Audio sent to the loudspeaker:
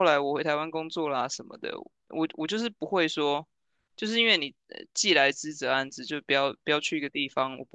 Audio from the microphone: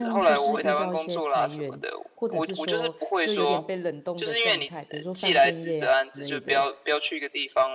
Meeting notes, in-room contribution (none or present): present